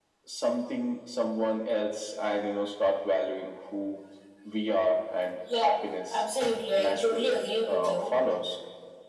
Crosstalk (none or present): present